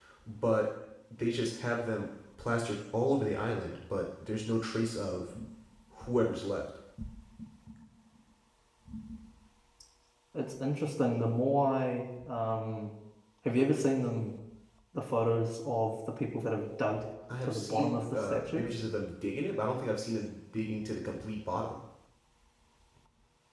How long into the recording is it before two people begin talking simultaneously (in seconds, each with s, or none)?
17.4 s